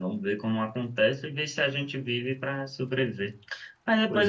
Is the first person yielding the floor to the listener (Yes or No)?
No